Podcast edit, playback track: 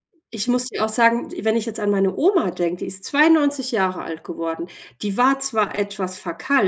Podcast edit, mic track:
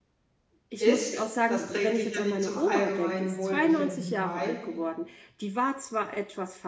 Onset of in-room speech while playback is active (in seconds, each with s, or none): 0.8 s